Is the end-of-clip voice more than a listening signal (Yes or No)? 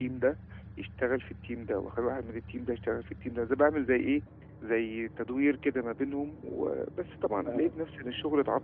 No